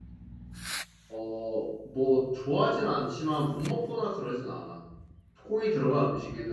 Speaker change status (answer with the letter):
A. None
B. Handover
A